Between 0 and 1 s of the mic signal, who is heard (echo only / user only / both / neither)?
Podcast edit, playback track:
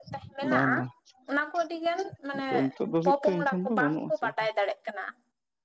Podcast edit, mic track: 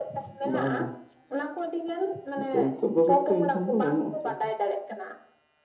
echo only